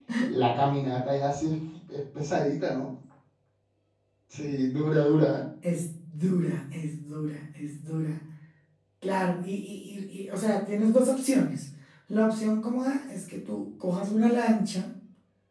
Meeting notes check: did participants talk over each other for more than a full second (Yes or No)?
No